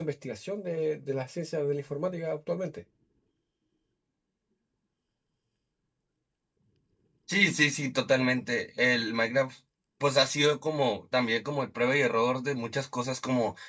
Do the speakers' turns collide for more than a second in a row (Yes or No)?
No